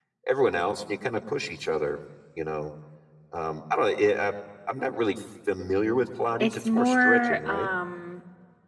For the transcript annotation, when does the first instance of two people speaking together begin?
6.4 s

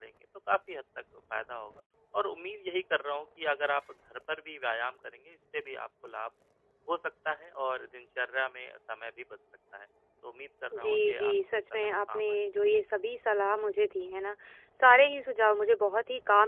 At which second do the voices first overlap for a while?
10.7 s

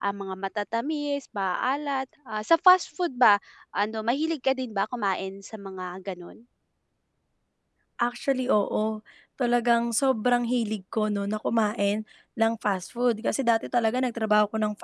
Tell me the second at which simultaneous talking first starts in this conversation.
none

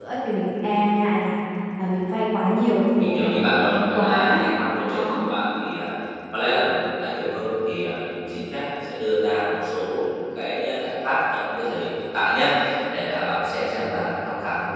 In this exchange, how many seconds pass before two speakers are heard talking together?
3.0 s

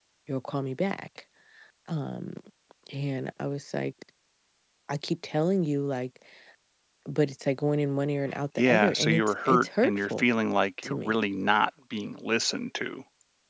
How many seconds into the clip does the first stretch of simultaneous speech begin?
8.6 s

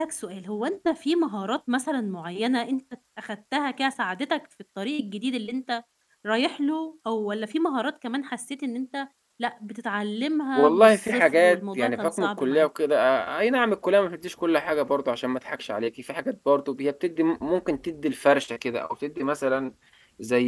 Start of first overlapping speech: 10.6 s

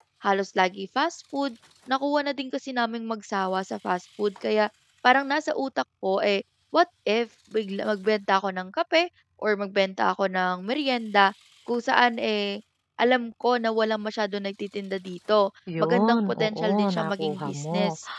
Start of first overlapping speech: 15.7 s

